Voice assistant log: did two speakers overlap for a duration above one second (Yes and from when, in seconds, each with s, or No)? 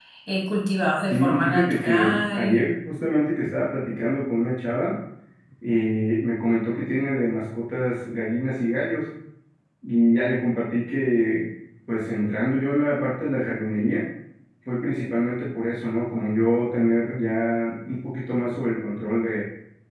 Yes, from 1.1 s